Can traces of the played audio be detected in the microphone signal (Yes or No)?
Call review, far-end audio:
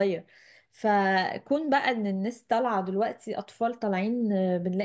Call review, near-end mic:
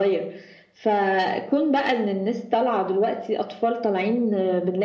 Yes